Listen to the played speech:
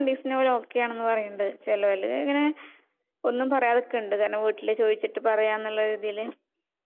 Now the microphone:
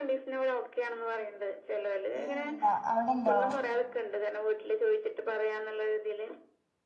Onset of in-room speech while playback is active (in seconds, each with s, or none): 2.2 s